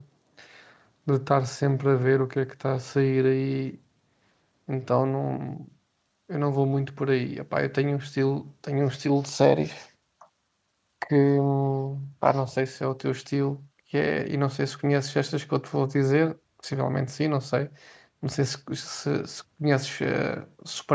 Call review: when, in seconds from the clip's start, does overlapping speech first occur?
none

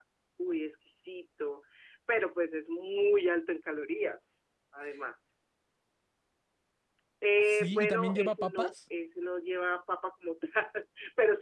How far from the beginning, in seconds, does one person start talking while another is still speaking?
7 s

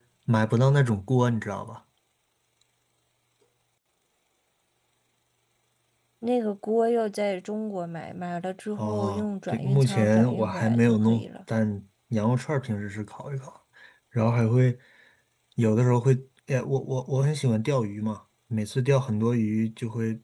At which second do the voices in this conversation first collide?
9 s

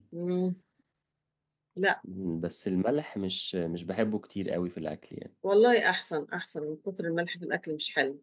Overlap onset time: none

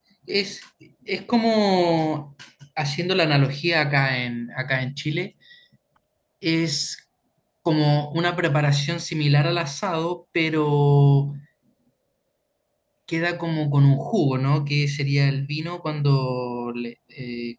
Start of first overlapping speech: none

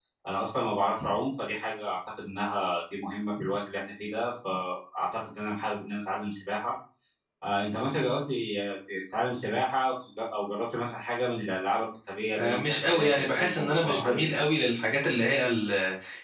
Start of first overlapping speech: 12 s

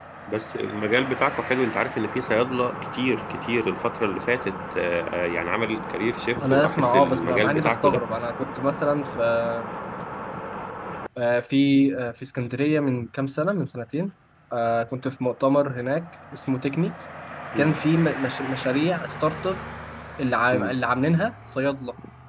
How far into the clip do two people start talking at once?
6 s

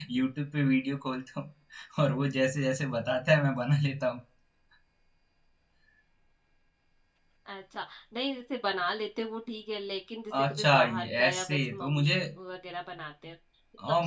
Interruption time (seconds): 10 s

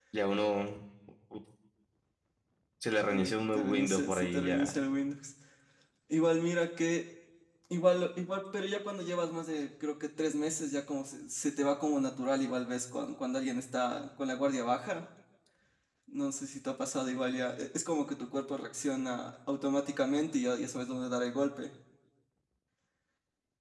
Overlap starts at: 3 s

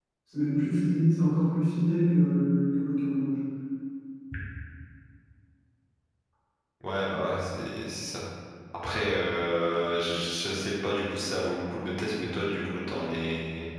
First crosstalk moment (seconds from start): none

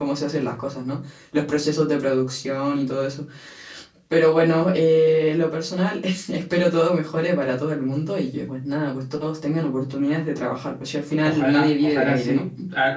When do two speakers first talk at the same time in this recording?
11 s

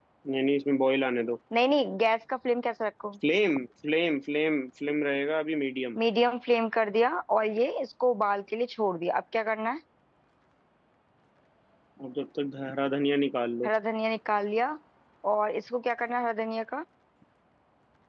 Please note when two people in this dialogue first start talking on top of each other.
none

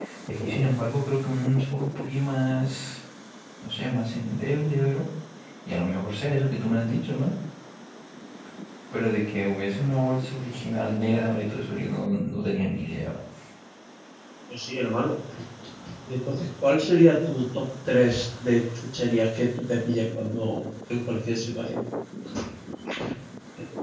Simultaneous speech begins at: none

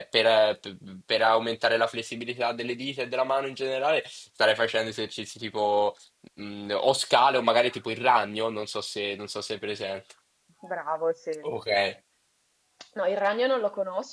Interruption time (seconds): none

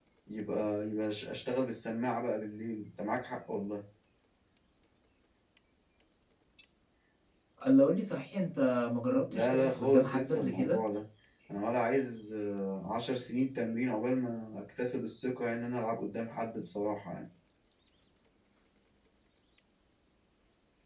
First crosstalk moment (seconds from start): 9 s

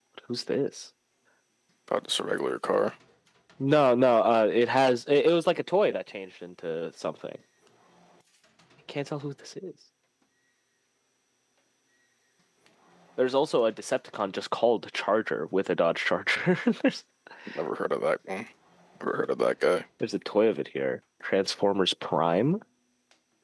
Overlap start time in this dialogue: none

